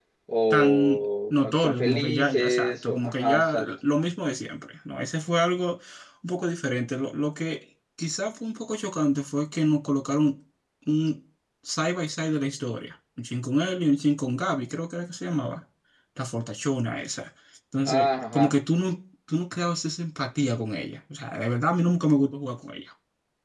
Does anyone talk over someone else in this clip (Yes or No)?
Yes